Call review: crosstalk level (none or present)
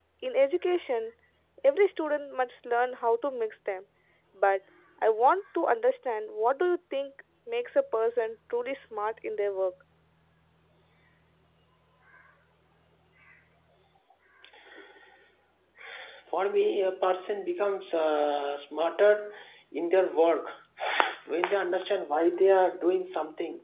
none